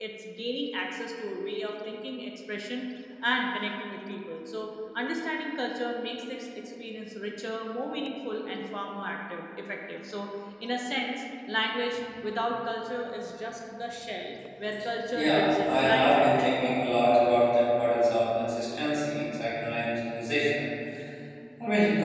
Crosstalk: present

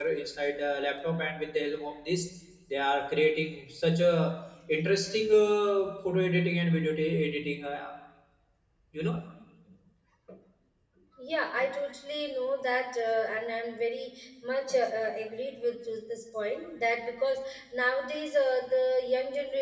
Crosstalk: none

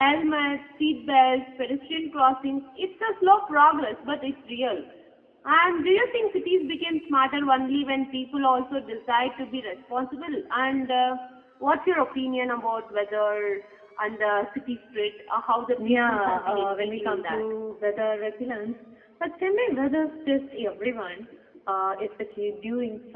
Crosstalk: present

